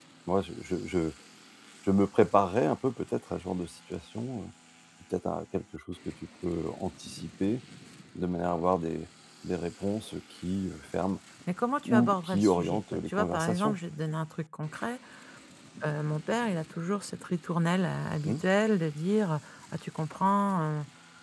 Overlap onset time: 12 s

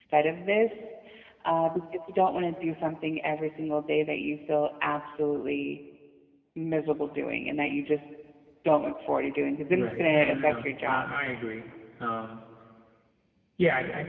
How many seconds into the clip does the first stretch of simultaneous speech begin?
10 s

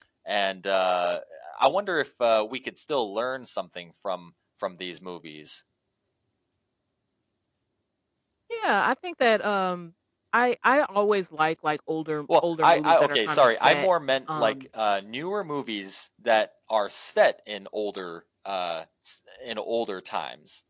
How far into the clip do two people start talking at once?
12 s

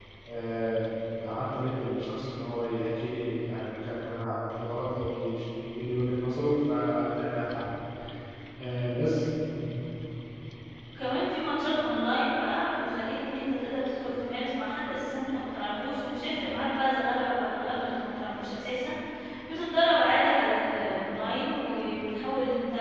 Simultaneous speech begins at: none

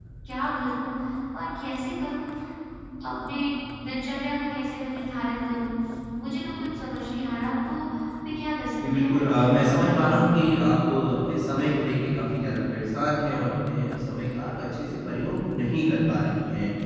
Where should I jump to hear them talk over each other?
9 s

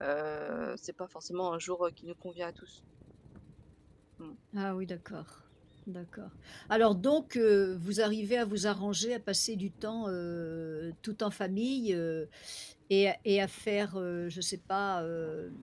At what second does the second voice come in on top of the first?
none

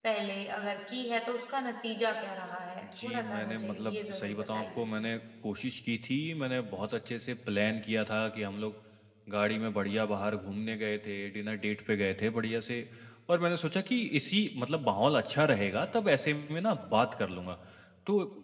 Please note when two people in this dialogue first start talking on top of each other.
3 s

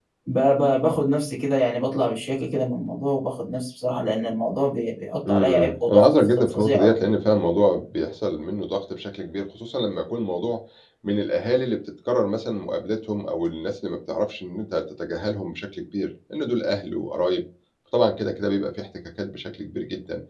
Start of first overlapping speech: 5 s

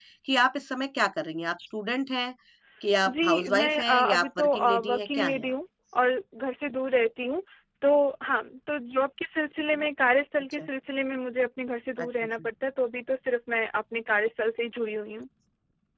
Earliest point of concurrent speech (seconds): 3 s

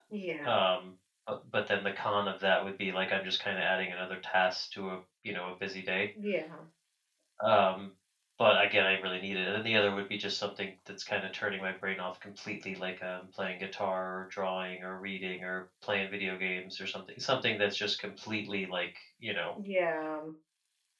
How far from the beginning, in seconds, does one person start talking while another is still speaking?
none

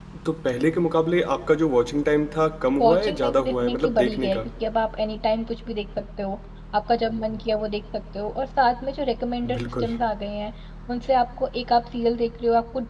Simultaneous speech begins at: 3 s

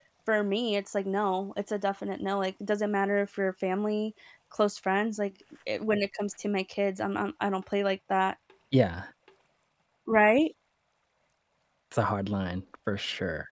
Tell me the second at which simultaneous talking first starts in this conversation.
none

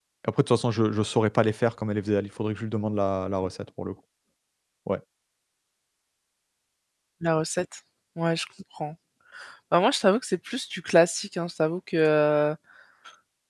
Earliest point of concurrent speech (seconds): none

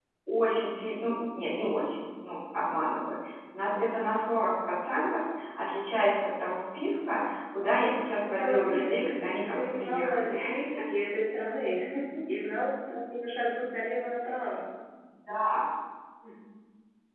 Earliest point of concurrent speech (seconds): 8 s

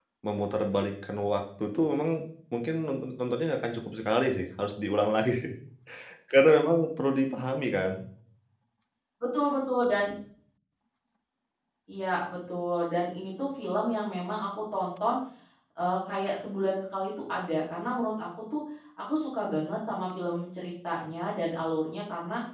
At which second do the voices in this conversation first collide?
none

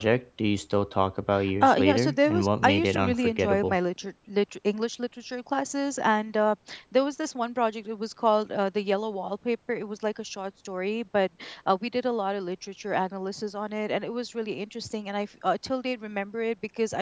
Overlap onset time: 1 s

